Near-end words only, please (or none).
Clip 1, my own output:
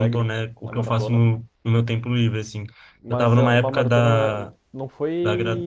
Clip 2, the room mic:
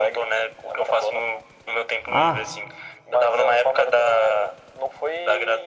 Ah,